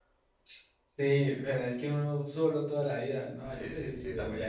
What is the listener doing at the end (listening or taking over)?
taking over